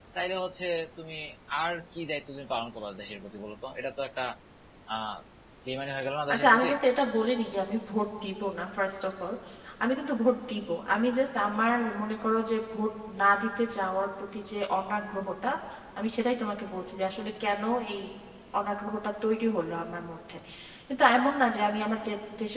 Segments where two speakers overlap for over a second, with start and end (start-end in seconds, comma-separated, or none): none